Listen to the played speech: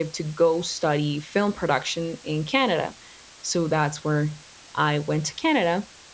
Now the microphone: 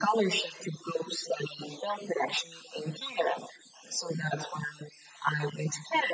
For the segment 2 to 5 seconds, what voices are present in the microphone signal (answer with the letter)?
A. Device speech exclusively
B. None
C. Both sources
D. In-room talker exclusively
A